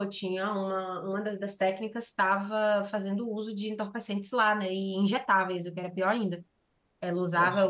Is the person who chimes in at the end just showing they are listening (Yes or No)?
Yes